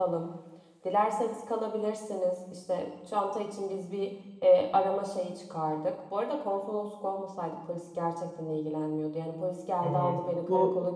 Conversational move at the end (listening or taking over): taking over